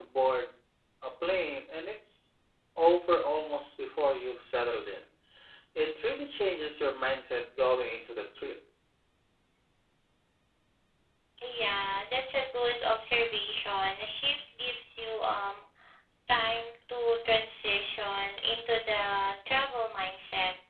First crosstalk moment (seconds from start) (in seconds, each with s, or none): none